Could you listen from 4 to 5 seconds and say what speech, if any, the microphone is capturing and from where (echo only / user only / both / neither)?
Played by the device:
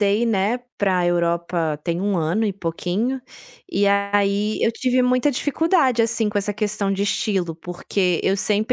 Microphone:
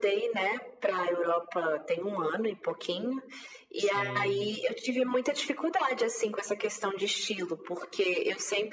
both